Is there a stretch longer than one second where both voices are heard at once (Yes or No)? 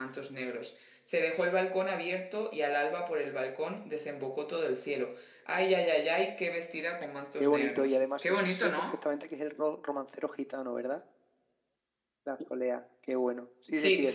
Yes